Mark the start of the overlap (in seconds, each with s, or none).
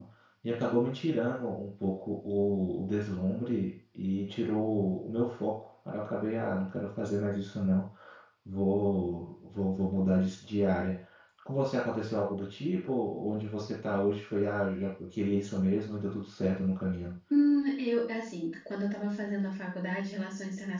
none